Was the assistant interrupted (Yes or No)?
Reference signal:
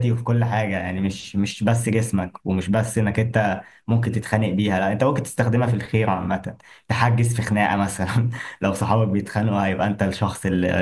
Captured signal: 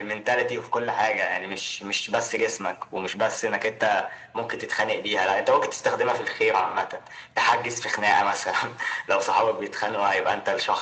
No